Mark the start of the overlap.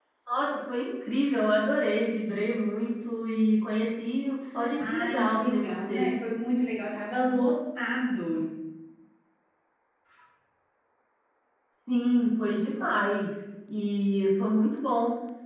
4.7 s

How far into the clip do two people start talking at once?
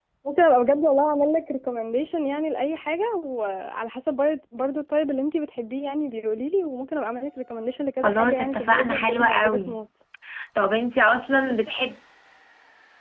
8.0 s

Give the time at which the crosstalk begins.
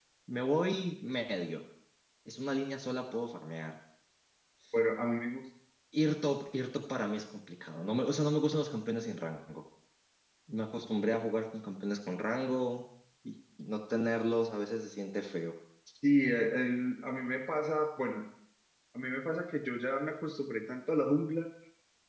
none

